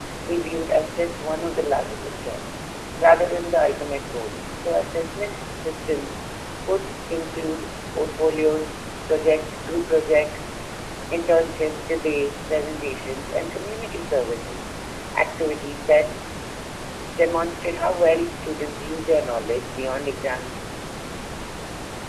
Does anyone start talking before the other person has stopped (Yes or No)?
No